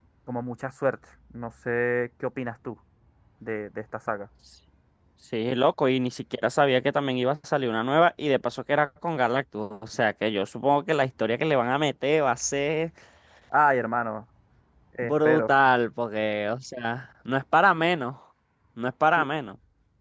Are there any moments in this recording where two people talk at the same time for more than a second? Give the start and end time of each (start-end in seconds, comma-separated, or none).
none